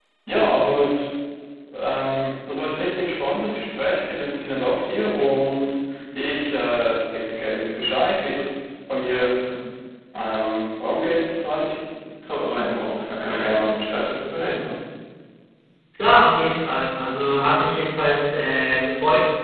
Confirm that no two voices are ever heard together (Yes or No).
Yes